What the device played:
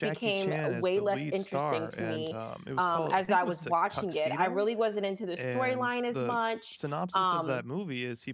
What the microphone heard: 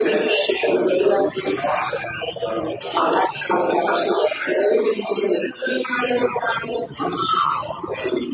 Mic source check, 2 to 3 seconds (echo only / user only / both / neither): echo only